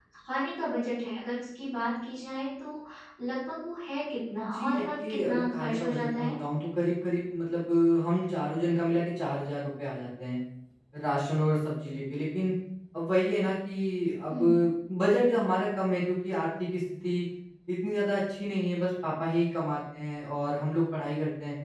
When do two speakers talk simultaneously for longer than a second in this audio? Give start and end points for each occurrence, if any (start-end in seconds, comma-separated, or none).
4.5-6.3